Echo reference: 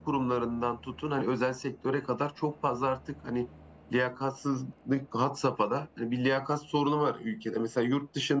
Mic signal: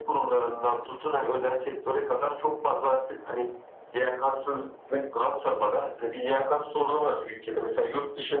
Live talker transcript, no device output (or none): none